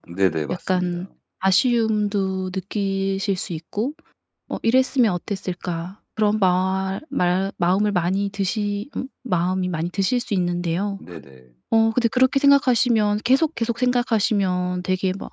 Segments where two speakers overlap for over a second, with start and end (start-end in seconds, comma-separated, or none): none